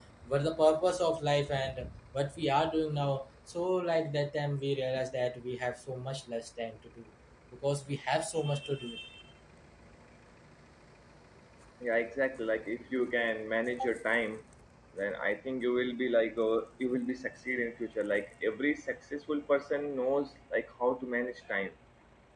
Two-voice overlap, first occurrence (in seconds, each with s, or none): none